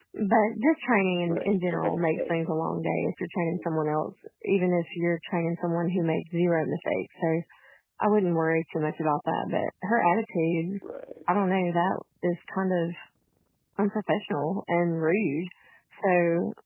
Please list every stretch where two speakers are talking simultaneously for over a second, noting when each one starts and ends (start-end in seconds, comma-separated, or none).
1.3-2.5